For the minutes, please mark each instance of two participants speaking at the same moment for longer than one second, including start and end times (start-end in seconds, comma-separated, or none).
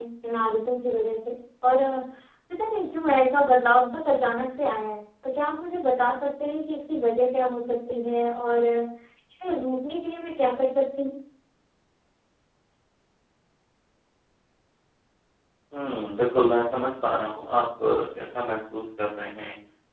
none